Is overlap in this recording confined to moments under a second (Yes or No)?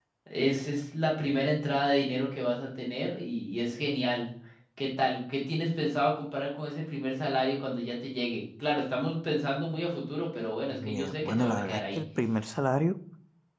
No